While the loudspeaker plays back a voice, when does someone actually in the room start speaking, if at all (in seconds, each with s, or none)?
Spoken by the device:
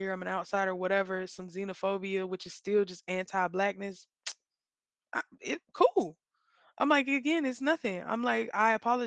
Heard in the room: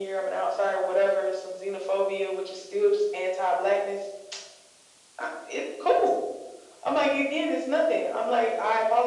none